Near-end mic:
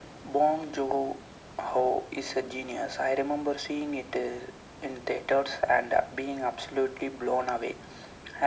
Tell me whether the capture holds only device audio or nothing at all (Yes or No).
Yes